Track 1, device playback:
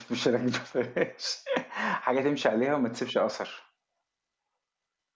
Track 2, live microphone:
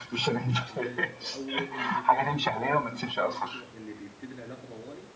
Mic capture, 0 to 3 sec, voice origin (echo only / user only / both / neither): both